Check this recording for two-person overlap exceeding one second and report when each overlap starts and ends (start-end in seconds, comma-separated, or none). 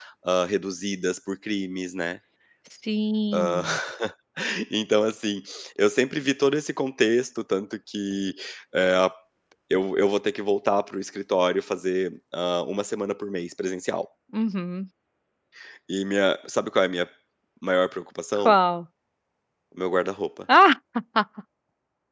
none